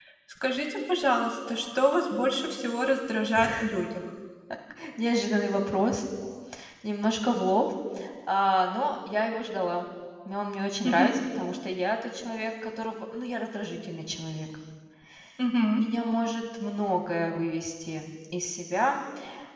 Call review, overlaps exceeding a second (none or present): none